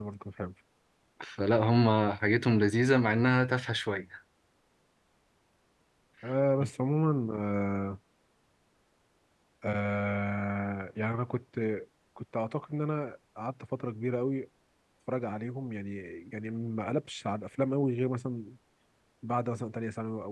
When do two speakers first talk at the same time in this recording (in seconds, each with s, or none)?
none